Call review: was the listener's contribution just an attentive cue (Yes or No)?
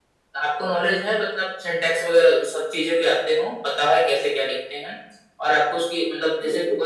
Yes